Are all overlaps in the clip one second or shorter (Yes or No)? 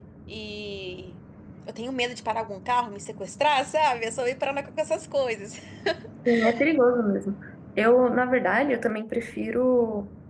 Yes